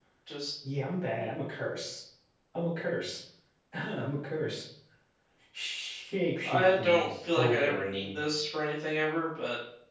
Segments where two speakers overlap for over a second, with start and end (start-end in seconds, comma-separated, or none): 6.4-8.2